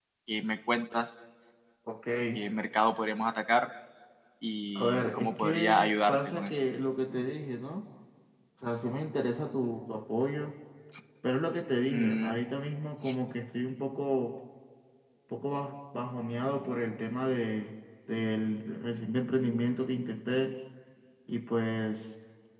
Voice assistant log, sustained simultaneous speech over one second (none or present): present